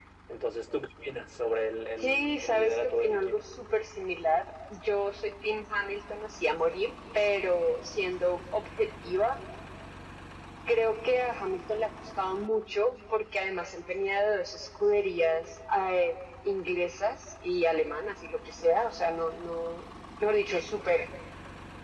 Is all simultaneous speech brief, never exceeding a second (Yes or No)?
No